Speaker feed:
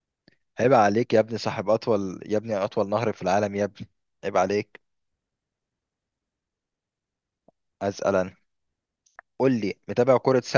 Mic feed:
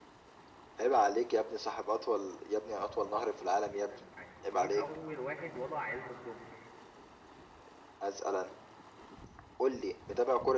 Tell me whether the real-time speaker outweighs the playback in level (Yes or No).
No